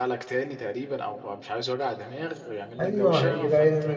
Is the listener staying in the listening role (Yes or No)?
No